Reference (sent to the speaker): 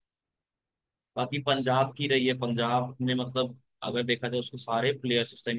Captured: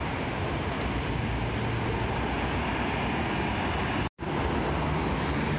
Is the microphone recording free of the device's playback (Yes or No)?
Yes